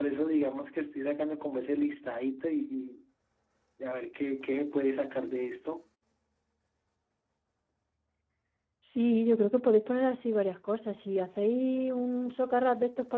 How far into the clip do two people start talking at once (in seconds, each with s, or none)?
none